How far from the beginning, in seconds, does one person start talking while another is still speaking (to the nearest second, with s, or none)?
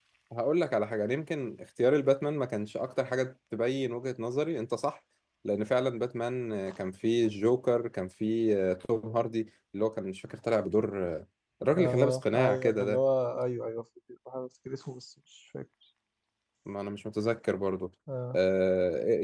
12 s